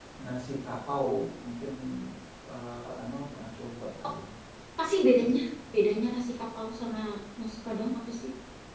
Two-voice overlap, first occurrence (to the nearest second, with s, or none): none